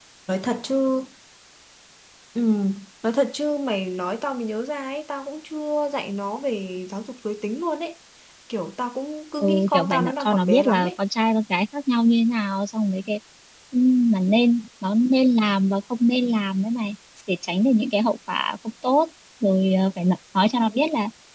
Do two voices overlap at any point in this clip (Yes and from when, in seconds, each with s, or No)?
Yes, from 9.4 s